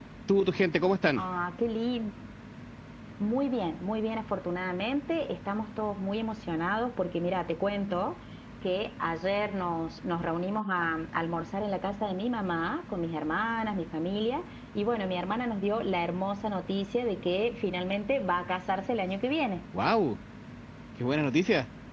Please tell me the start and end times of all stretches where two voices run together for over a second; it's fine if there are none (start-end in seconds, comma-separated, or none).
none